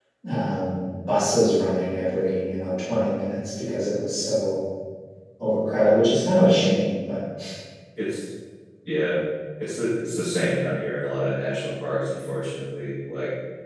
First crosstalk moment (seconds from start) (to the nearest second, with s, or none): none